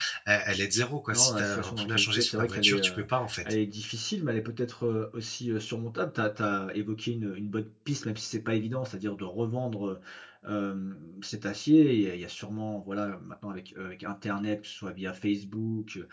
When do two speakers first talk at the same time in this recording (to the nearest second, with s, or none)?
1 s